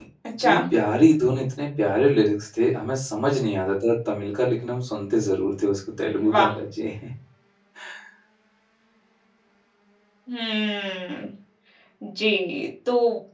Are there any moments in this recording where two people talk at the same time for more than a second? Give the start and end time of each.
none

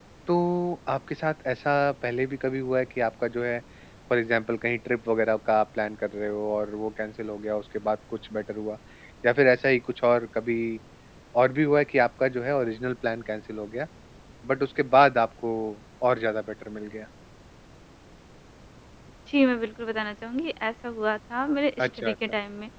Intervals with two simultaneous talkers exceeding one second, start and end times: none

